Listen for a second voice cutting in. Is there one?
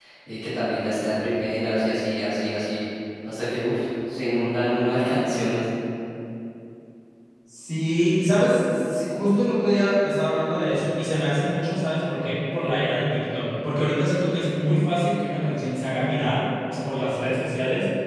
No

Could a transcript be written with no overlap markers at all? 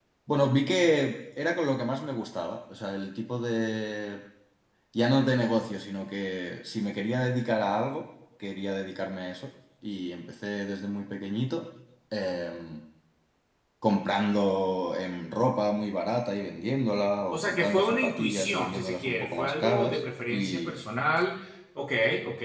No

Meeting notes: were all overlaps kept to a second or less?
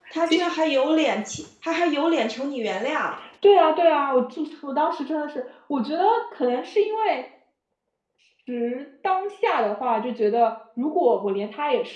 Yes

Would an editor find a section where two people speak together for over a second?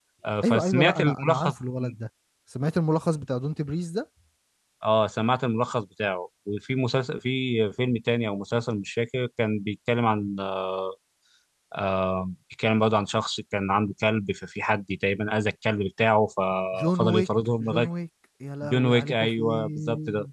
Yes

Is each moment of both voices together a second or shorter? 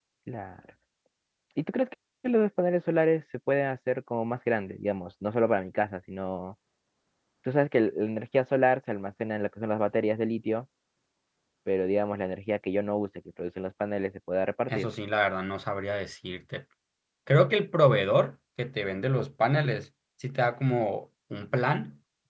Yes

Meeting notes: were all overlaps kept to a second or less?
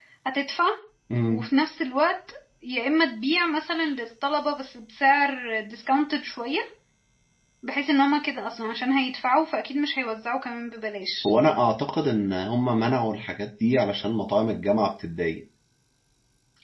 Yes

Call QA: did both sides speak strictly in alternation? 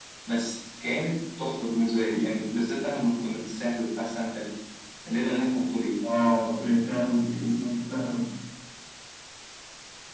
Yes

